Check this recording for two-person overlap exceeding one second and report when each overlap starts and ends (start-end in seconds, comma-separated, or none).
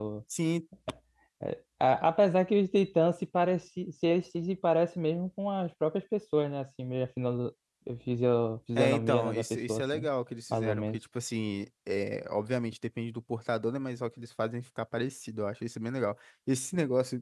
8.8-10.1